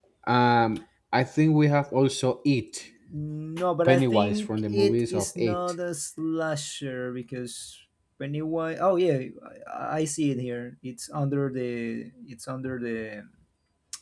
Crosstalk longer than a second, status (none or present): present